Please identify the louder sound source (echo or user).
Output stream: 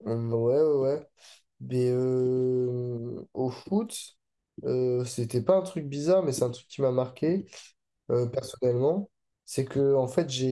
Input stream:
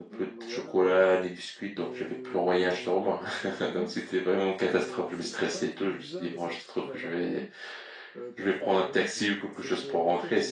user